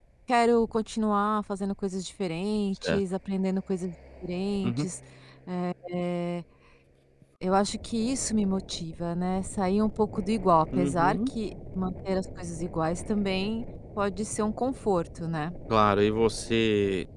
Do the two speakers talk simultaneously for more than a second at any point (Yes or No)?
No